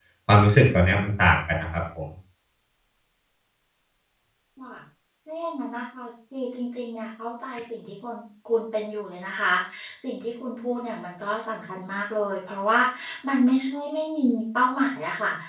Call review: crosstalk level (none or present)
none